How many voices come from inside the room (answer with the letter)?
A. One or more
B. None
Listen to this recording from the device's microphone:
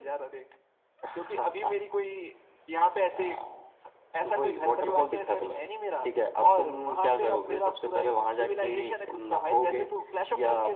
B